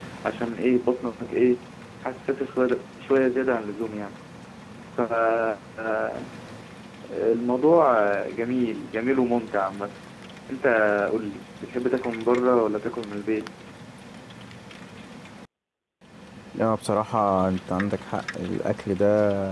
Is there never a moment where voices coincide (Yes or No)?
Yes